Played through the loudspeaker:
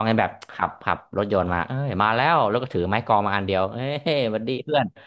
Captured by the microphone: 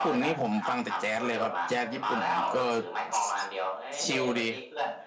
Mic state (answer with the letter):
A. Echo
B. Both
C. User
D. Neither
B